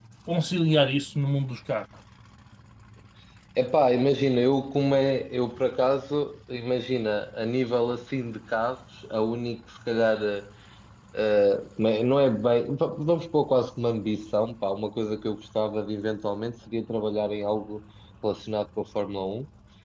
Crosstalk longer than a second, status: none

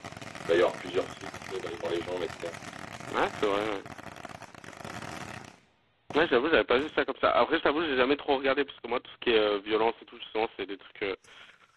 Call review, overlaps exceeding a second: none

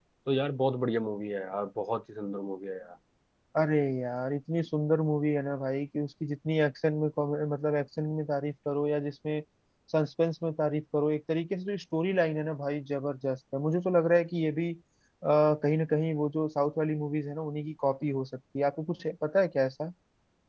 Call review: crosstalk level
none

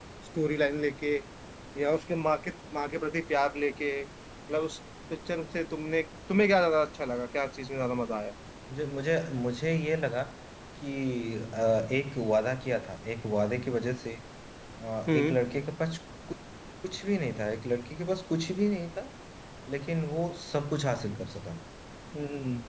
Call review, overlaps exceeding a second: none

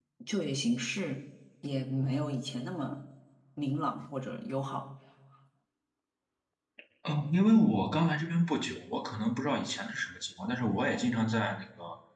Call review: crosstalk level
none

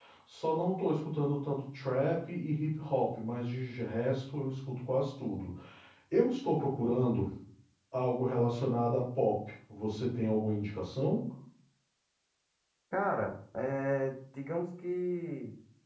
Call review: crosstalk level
none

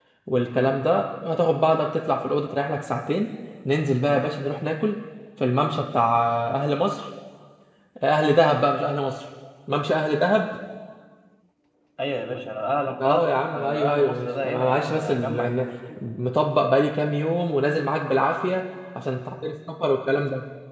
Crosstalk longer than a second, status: present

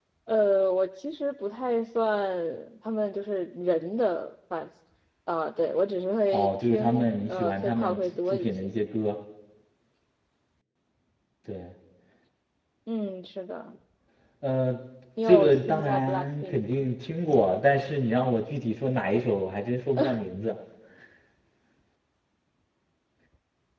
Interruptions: present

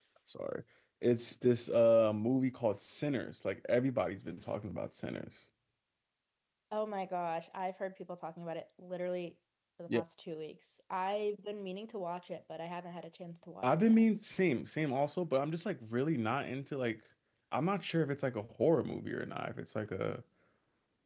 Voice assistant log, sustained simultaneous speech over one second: none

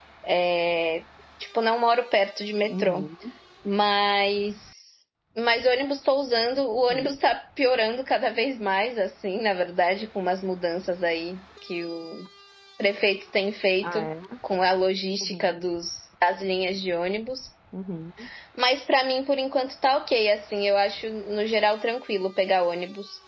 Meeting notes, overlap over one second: none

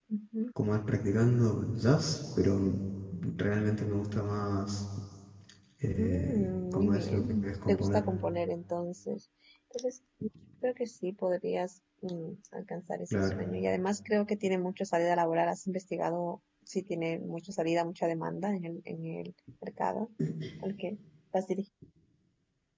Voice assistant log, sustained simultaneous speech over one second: present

